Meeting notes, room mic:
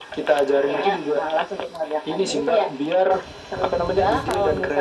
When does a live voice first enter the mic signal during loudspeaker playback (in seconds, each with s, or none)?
none